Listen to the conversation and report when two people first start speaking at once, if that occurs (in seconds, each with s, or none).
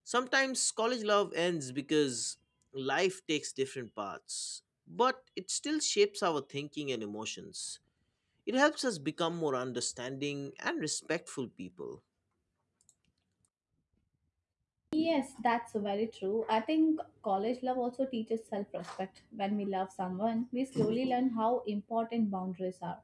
none